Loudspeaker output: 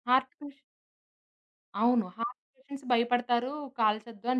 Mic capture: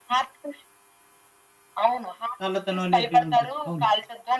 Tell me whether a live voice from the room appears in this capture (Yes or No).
Yes